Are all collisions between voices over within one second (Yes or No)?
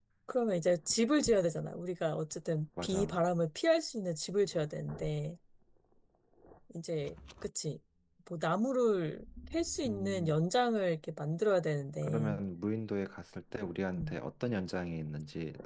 Yes